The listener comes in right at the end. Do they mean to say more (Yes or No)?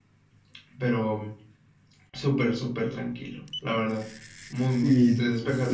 Yes